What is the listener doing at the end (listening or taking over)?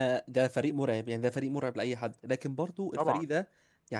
listening